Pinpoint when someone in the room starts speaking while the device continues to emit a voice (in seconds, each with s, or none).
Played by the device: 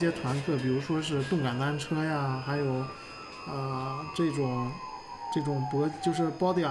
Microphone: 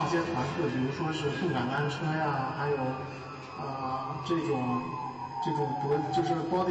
none